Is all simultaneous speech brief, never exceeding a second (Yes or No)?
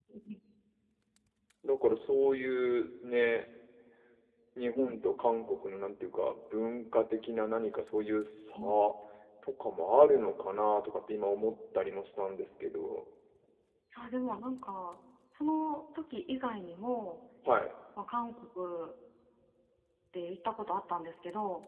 Yes